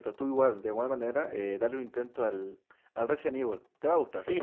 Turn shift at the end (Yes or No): Yes